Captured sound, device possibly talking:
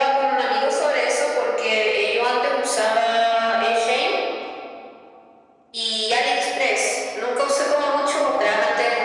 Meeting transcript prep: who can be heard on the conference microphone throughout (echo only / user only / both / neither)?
echo only